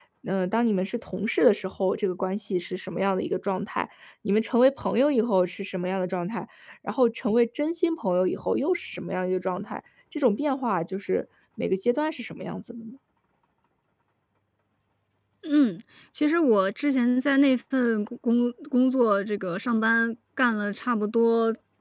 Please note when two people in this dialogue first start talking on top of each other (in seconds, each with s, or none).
none